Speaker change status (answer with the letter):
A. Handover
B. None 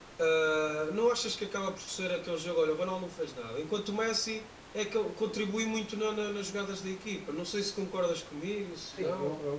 A